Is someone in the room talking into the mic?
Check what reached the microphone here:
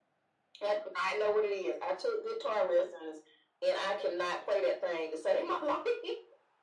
No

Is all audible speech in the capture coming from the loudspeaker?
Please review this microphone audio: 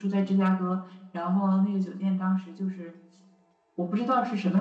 No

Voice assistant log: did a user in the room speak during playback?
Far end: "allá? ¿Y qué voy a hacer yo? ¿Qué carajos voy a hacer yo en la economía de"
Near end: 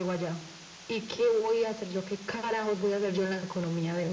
No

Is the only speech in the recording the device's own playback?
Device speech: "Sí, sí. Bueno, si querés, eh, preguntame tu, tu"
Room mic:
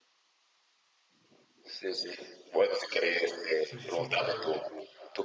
No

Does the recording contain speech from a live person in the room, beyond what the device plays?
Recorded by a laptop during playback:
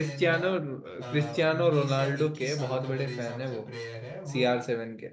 Yes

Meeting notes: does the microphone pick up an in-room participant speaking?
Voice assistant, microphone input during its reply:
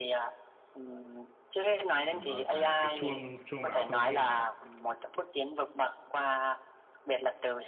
Yes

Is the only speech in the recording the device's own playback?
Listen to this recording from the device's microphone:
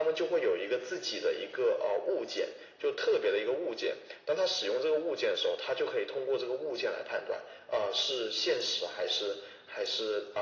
Yes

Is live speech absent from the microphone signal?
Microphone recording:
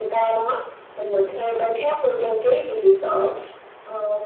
Yes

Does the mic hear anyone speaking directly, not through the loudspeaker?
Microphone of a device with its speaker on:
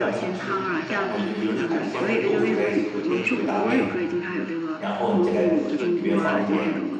Yes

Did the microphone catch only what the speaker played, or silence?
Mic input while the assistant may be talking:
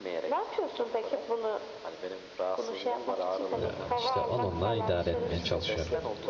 No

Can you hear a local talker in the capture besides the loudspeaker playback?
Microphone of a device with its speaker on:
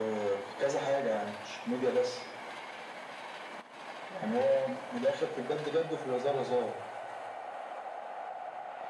No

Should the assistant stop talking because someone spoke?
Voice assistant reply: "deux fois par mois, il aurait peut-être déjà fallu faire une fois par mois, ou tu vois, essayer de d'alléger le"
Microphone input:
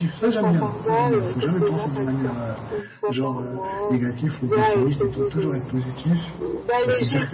Yes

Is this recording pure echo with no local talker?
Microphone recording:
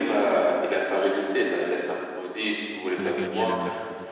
No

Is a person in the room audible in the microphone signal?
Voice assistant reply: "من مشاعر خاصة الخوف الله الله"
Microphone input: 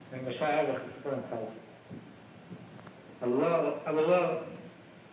No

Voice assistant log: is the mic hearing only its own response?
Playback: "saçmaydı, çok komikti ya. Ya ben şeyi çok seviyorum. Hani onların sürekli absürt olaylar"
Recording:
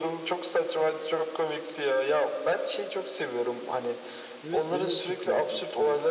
No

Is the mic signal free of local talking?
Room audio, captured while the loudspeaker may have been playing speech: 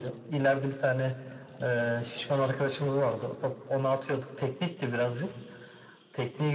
Yes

